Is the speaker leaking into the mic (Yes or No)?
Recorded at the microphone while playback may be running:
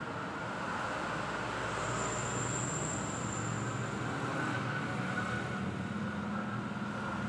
No